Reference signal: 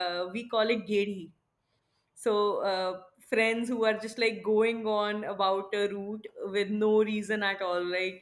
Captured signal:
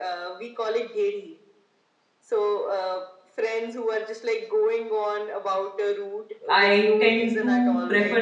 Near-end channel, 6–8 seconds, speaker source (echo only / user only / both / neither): both